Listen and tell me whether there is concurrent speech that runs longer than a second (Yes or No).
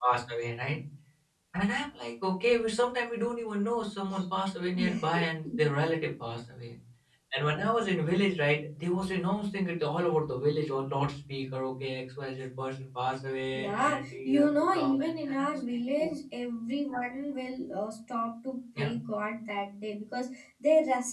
Yes